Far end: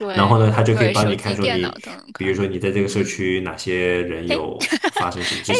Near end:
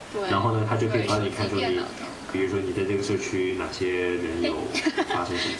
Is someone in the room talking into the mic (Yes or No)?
No